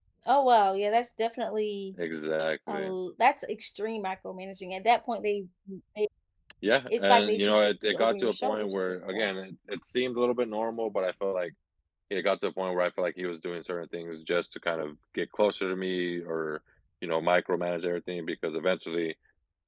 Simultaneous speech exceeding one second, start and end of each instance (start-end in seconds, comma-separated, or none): 6.9-9.3